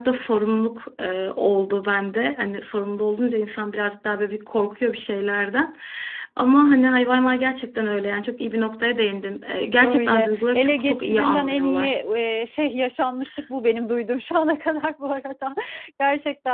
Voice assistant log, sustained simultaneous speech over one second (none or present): present